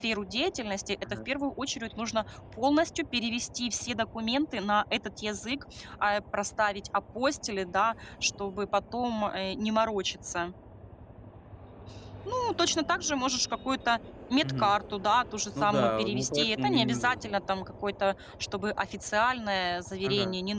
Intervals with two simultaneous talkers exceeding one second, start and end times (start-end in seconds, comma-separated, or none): 15.6-17.4